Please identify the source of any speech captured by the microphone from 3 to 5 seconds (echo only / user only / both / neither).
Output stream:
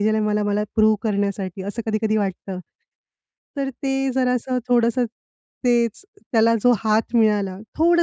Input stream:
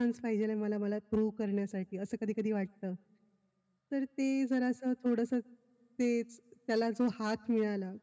echo only